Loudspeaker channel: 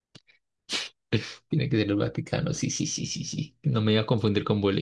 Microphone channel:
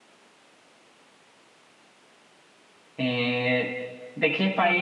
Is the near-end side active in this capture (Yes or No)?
Yes